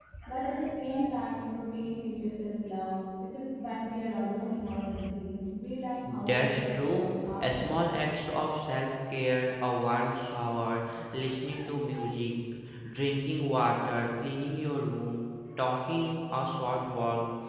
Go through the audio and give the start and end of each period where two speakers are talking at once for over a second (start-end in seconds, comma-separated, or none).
6.2-7.8